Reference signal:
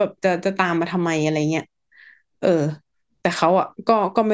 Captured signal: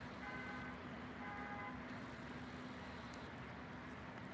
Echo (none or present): none